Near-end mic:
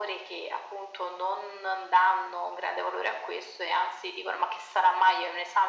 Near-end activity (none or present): none